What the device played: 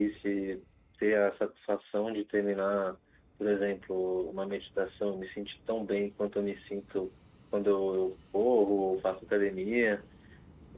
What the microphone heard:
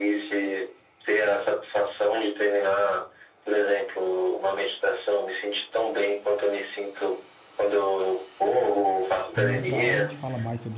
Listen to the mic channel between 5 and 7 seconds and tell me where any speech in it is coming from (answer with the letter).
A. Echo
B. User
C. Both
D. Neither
A